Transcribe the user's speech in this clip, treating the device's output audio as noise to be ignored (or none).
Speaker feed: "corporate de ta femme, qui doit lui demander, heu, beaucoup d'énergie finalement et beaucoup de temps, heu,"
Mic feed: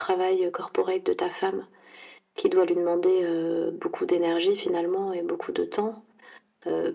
none